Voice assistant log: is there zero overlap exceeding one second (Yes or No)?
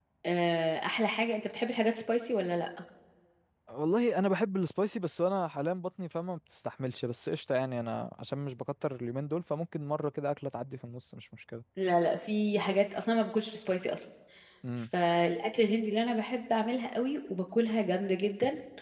Yes